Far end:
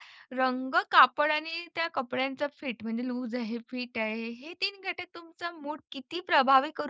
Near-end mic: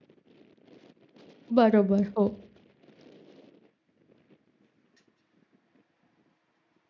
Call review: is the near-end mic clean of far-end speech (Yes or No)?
Yes